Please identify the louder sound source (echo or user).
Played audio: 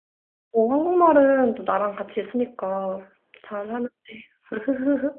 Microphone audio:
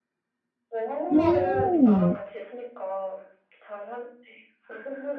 user